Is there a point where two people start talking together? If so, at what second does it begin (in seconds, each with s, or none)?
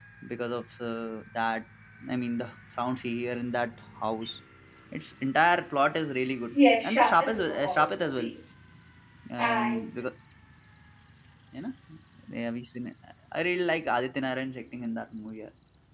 6.8 s